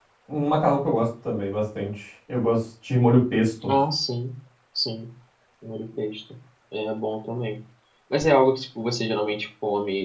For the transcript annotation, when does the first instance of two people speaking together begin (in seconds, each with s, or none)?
none